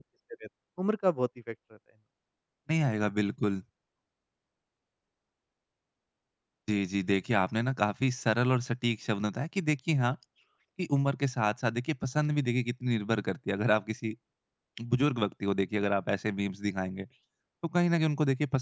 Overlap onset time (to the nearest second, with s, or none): none